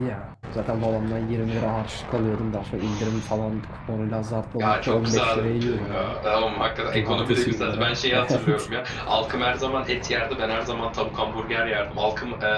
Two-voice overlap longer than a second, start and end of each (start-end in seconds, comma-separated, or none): 4.6-6.2, 6.9-8.7